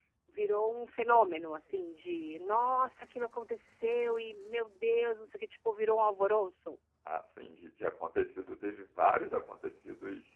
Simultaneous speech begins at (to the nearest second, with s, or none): none